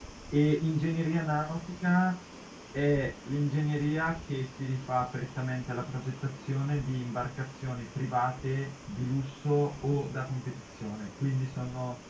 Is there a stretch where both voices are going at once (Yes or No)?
No